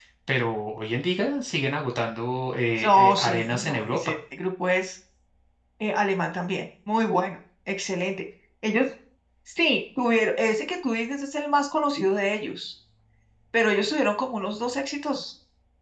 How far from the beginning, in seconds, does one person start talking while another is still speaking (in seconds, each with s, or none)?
2.8 s